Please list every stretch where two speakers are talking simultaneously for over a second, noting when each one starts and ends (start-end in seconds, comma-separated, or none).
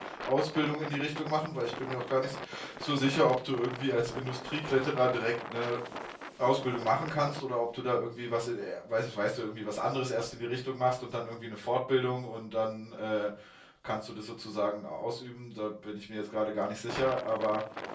none